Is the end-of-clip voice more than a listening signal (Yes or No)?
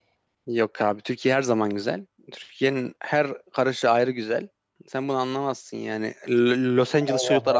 Yes